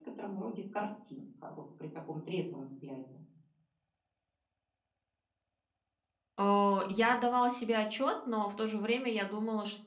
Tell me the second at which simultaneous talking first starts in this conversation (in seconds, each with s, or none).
none